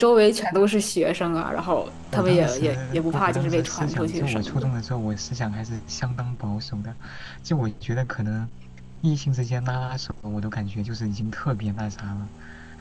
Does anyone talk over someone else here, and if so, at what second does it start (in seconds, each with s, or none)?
2.1 s